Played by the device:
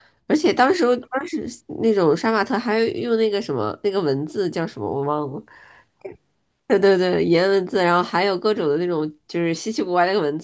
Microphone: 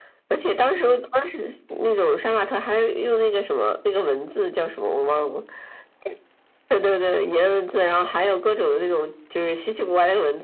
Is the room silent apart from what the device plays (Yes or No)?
Yes